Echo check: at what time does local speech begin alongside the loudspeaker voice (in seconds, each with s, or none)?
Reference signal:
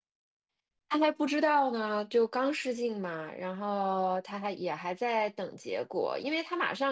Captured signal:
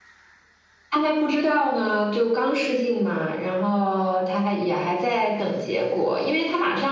none